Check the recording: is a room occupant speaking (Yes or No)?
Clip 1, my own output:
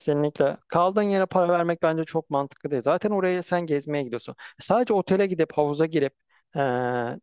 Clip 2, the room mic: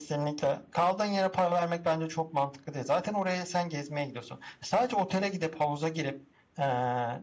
No